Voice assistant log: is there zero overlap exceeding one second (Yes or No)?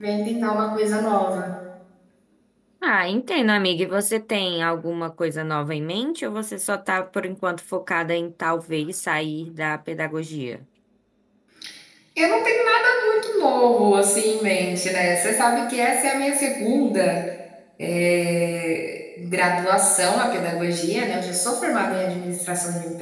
Yes